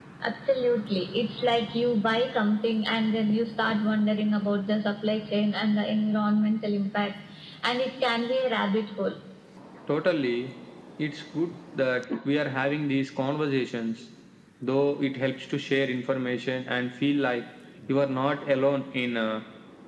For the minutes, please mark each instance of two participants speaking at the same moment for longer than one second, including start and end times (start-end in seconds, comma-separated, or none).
none